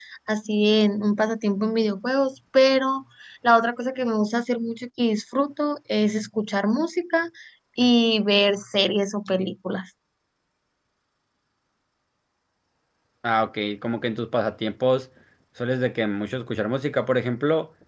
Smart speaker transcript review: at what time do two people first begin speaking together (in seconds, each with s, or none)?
none